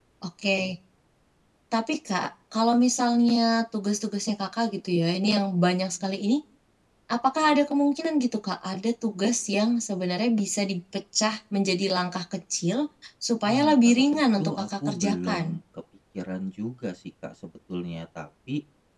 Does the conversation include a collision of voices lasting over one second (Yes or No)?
Yes